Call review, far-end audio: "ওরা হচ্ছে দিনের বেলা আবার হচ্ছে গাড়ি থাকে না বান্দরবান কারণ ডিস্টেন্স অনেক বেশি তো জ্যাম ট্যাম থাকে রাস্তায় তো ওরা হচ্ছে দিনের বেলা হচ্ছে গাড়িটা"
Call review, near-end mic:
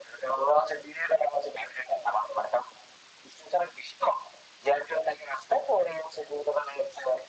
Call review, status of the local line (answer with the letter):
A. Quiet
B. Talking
A